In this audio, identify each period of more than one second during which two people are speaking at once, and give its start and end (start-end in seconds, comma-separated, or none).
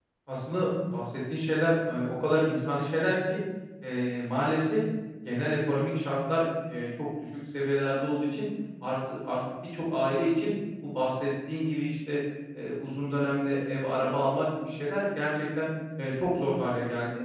none